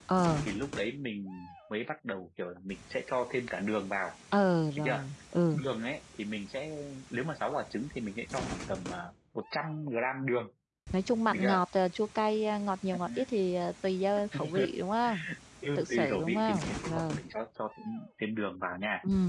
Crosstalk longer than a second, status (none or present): present